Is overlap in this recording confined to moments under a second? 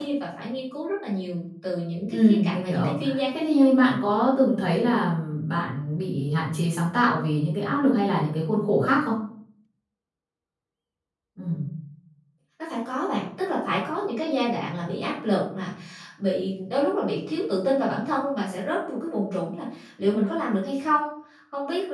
No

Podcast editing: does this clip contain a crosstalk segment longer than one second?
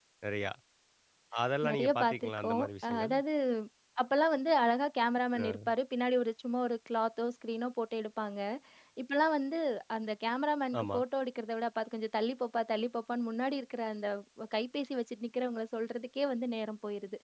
Yes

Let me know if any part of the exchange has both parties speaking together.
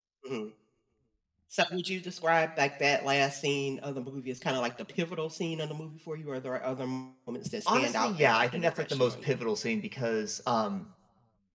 Yes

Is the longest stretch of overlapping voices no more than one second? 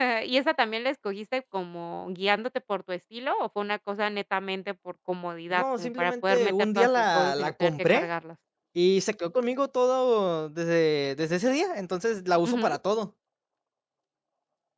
No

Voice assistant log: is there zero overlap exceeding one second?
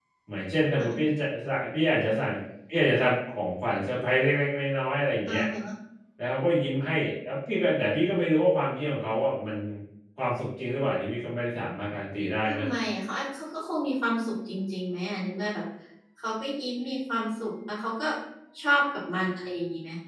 Yes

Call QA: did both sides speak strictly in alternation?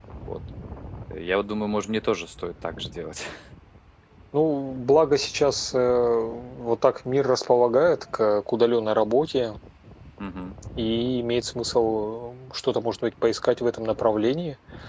Yes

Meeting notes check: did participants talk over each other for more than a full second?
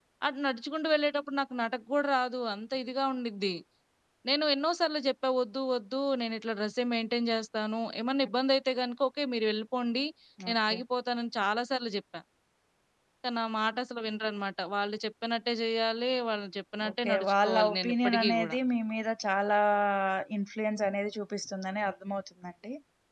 Yes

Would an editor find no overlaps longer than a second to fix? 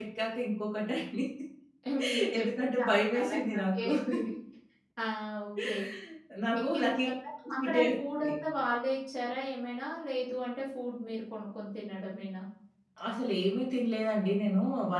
No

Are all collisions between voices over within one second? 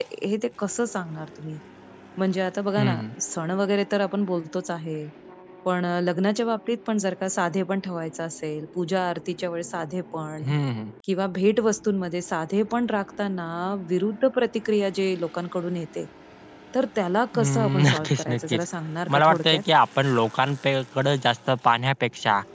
No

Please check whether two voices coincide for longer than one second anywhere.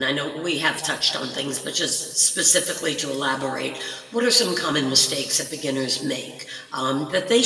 No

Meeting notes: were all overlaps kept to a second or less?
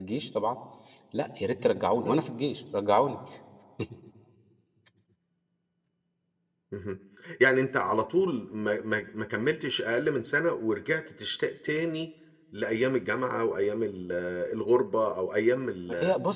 Yes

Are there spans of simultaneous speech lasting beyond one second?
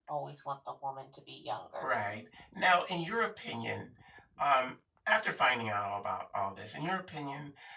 No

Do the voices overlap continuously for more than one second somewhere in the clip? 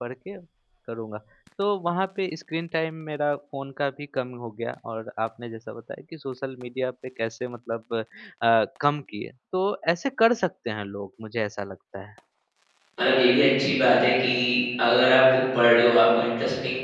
No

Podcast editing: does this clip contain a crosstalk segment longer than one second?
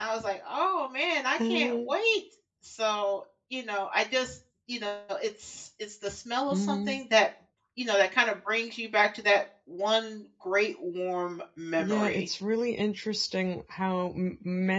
No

